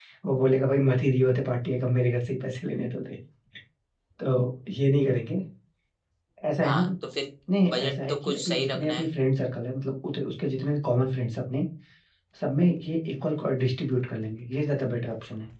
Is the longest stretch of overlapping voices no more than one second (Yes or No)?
No